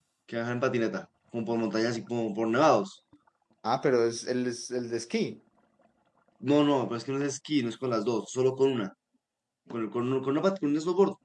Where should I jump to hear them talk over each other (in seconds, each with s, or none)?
none